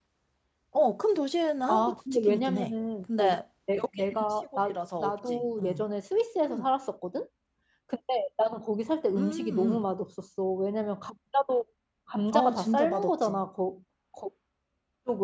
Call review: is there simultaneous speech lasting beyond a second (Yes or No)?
Yes